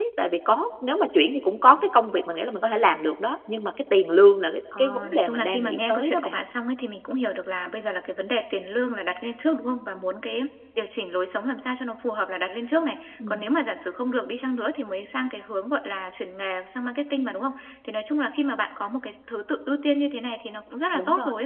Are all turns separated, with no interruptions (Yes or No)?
No